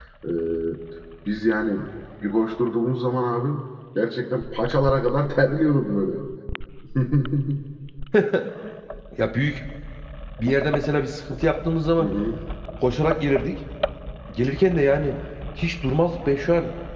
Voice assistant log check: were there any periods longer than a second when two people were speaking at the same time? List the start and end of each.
none

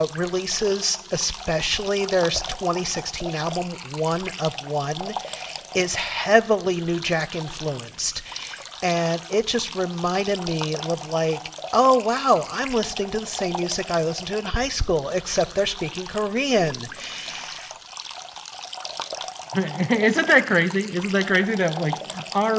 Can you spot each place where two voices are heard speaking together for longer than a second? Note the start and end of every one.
none

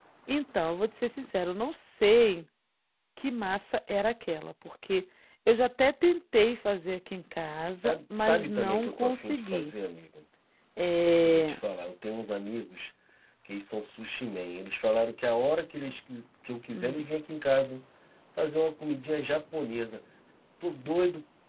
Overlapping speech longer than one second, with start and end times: 7.8-9.7

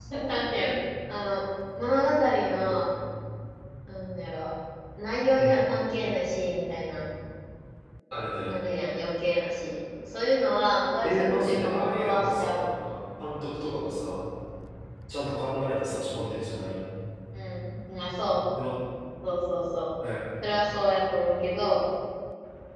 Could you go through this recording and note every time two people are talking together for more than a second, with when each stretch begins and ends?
11.0-12.6

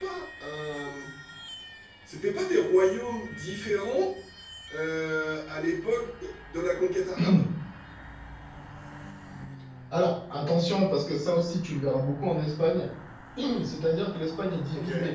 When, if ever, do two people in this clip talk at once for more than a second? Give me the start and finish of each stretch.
none

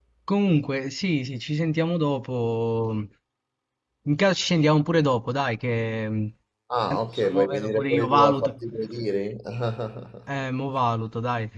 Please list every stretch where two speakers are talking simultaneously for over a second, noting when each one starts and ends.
6.9-8.6

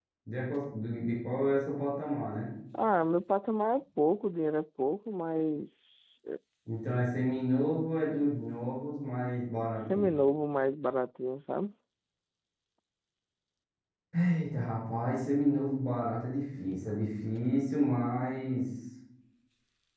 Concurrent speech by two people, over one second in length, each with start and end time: none

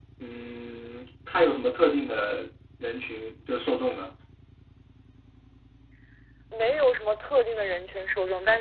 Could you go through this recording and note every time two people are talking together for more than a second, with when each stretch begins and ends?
none

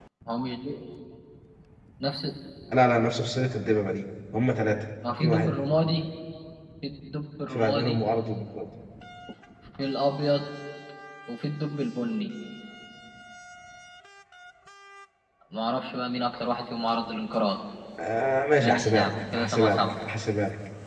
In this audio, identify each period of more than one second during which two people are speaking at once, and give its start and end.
18.6-19.9

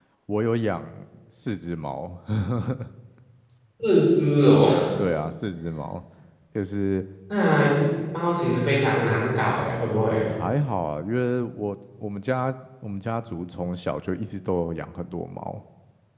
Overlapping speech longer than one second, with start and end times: none

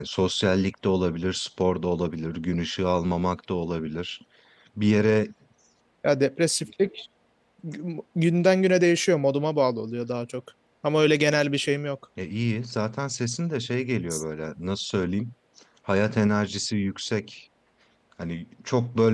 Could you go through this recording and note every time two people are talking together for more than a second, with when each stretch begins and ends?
none

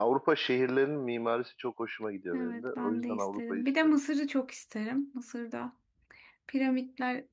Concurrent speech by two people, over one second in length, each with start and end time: 2.3-4.0

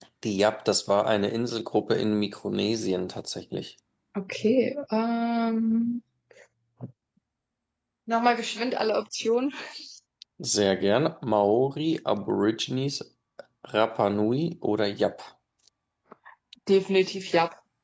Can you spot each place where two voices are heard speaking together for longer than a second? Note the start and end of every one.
none

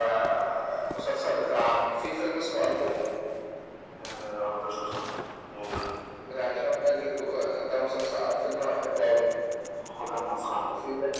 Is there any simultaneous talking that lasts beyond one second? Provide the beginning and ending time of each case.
none

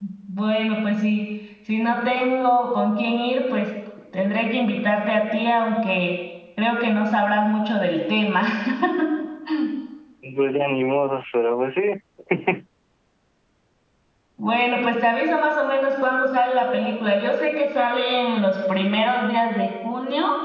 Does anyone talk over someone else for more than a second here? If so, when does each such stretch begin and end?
none

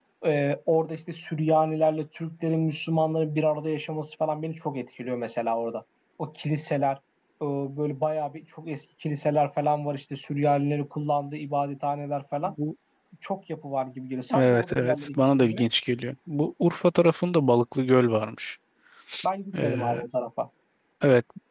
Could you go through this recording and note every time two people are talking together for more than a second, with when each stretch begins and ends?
14.3-15.6

